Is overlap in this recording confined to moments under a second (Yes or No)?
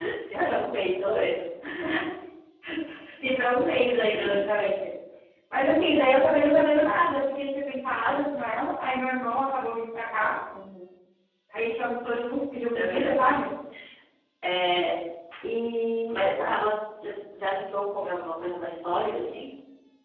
Yes